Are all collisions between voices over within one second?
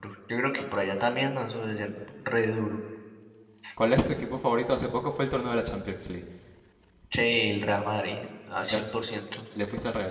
Yes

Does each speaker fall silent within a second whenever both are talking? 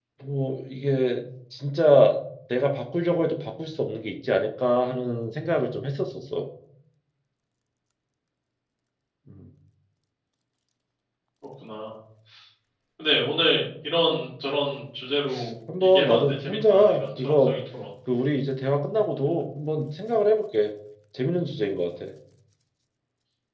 No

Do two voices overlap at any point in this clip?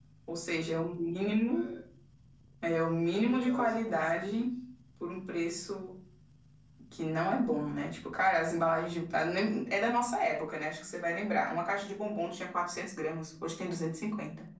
Yes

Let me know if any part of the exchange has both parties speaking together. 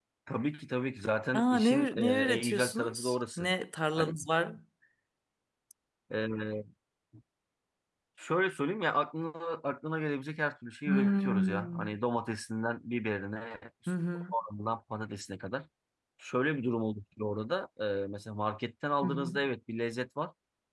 Yes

